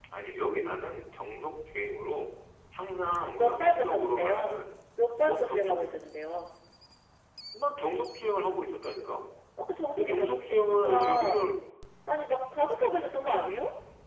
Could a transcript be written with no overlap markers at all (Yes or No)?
No